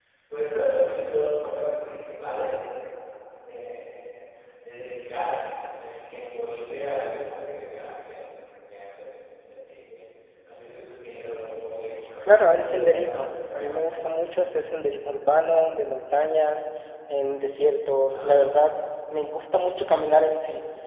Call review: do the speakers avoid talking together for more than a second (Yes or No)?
No